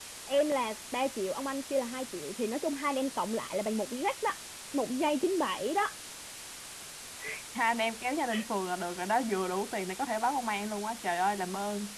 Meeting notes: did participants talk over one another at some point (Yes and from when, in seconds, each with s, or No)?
No